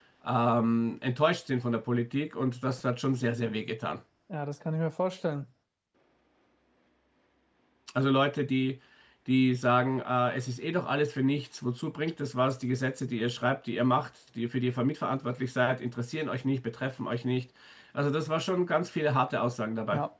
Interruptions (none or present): none